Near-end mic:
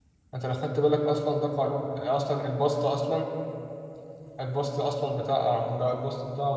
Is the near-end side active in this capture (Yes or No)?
Yes